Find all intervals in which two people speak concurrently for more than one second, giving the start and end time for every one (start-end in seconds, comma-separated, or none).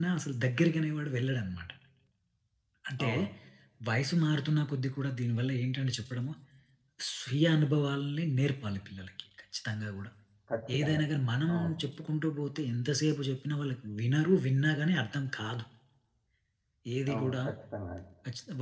none